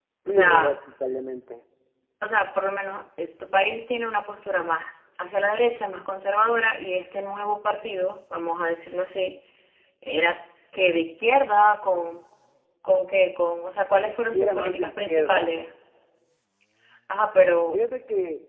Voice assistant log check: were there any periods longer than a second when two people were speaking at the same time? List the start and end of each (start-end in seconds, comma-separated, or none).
14.3-15.6